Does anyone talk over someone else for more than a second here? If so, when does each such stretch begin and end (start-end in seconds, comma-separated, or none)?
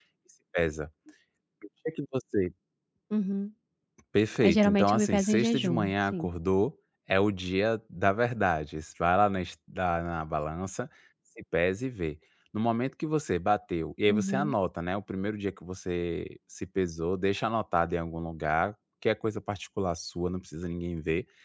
4.4-6.3